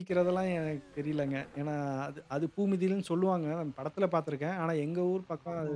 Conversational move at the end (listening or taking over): listening